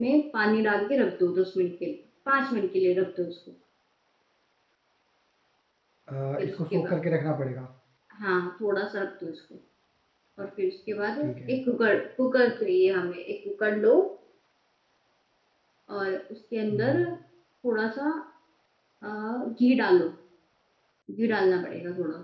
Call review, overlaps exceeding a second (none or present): none